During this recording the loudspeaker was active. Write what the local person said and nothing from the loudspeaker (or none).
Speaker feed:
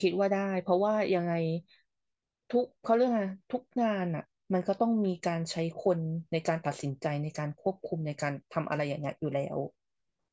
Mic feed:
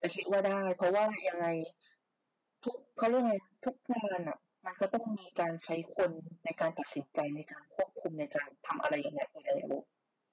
none